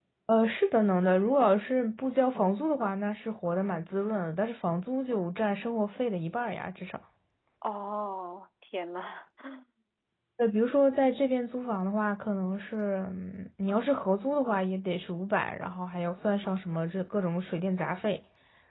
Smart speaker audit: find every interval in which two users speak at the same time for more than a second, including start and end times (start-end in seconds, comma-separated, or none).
none